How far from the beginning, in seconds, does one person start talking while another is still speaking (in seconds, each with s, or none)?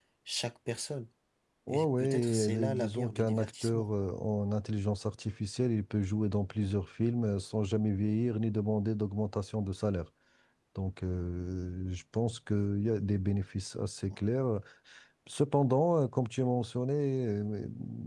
1.7 s